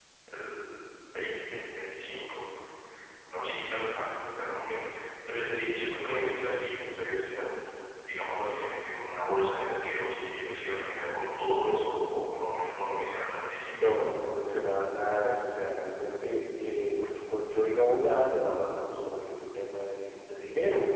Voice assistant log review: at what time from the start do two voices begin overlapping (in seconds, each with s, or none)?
none